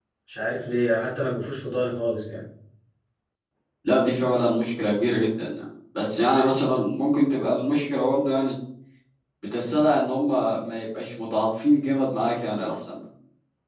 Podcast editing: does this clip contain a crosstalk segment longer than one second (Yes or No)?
No